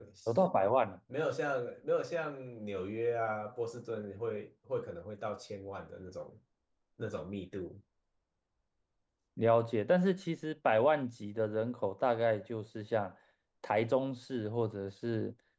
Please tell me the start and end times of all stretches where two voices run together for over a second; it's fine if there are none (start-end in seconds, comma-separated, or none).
none